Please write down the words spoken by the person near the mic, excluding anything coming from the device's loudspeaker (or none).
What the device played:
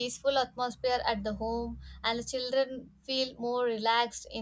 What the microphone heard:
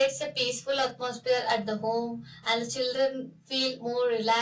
none